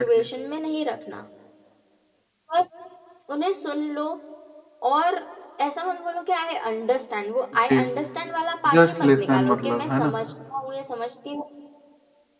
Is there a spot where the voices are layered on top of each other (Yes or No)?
Yes